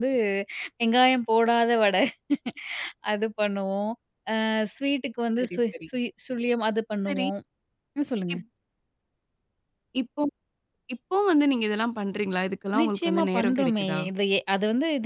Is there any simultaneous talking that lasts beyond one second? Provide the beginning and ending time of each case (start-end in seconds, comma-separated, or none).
12.8-14.0